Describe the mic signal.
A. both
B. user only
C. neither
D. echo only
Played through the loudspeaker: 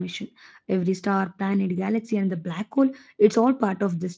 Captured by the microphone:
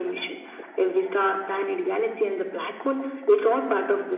D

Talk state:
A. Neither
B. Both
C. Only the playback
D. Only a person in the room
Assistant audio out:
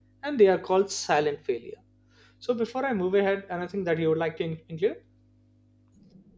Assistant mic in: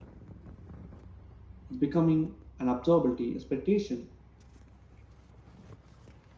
D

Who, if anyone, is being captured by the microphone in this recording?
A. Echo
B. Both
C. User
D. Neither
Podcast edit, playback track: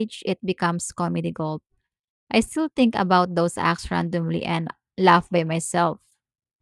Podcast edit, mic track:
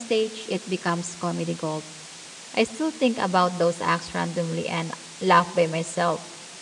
A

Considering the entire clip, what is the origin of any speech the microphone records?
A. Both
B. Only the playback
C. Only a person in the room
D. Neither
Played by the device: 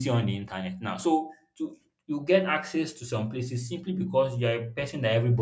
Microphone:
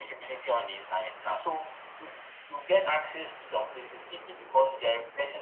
B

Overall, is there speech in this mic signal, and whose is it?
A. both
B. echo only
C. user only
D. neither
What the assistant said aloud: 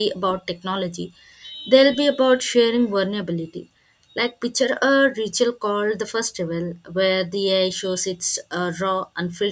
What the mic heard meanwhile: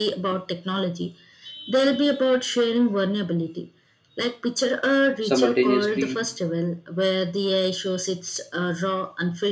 A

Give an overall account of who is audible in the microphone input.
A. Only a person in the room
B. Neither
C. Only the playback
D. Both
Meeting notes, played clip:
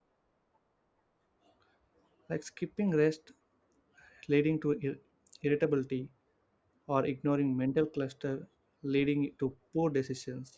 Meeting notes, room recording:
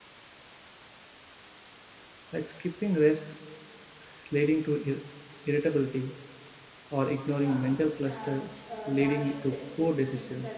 D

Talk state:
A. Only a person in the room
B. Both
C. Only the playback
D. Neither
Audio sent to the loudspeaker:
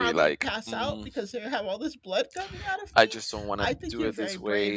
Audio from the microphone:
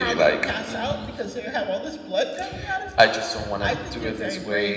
C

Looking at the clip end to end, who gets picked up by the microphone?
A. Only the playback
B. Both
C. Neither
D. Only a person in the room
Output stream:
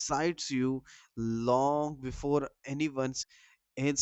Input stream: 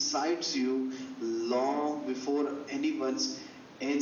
A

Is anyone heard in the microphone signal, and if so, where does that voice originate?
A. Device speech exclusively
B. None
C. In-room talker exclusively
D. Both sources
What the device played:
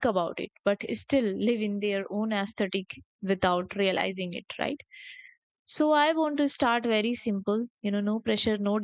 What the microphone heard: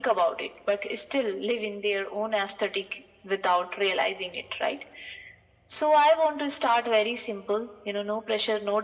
A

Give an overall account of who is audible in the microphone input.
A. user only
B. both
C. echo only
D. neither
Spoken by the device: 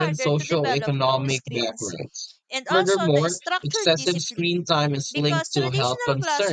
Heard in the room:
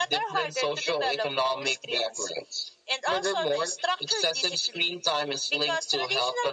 C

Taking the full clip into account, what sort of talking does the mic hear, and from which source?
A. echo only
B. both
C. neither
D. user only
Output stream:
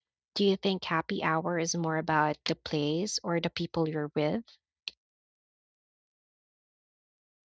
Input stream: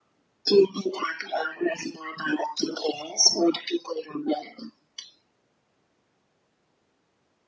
A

